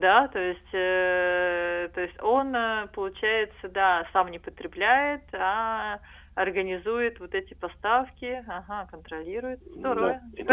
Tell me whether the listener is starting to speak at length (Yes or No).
Yes